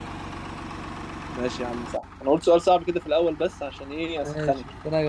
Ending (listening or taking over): taking over